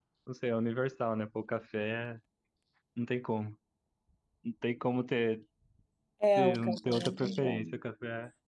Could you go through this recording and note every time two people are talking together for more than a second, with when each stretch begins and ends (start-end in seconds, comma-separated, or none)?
6.4-7.7